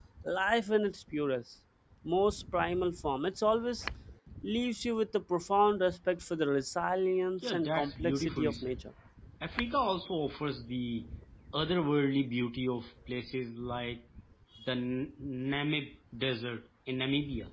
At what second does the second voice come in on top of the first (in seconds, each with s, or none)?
7.4 s